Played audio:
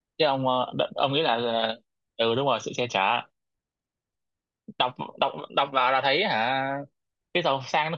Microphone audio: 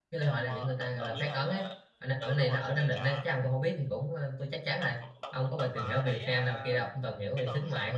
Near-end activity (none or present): present